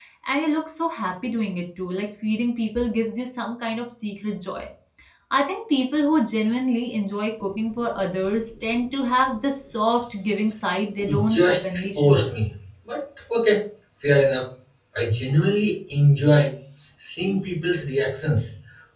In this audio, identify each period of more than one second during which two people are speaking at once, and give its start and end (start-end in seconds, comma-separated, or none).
11.1-12.3